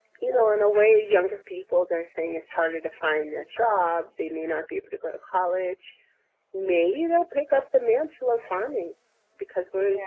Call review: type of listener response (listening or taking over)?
listening